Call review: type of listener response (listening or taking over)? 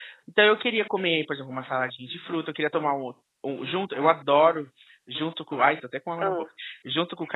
listening